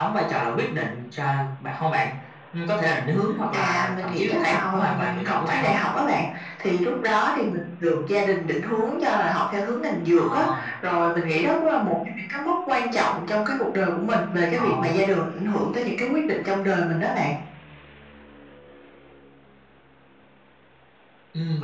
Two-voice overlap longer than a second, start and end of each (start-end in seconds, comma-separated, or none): 3.5-5.7